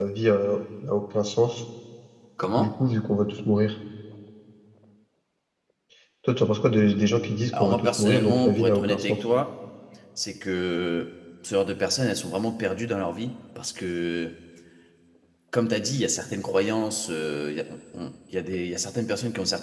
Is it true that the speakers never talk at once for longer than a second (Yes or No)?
No